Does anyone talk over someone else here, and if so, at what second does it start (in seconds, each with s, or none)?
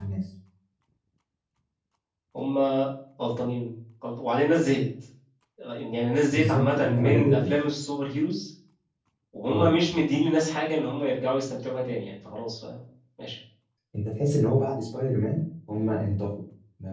6.3 s